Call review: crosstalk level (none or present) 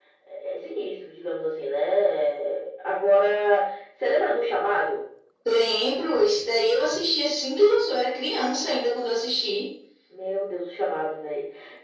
none